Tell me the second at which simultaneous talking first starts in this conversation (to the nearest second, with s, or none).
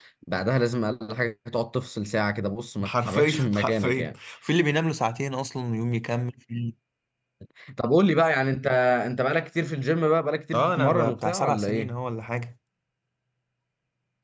3 s